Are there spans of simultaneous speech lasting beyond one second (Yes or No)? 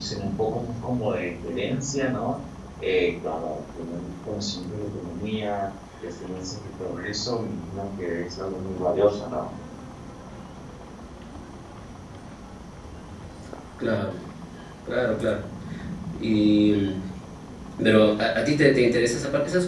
No